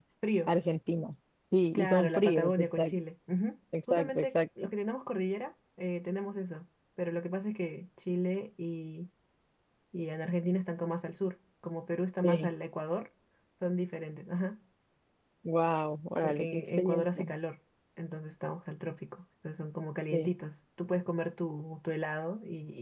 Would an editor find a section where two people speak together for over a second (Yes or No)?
Yes